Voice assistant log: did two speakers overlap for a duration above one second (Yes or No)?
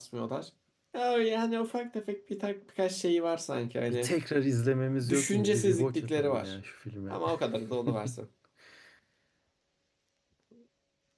Yes